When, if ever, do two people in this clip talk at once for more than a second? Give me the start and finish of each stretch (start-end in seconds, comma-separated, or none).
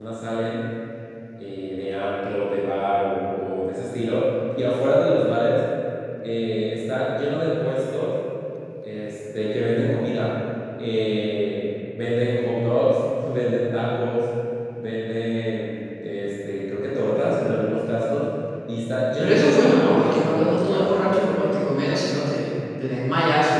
19.2-20.9